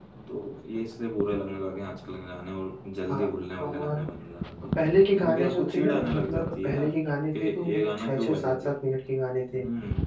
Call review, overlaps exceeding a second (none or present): present